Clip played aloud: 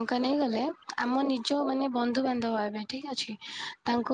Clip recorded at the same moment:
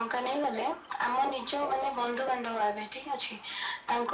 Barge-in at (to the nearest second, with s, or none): none